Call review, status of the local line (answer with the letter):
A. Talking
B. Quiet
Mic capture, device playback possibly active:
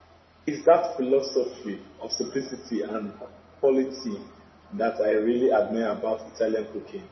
B